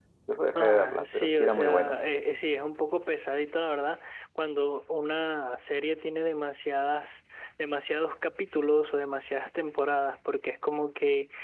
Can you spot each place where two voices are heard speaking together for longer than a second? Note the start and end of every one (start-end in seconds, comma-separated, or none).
0.6-2.0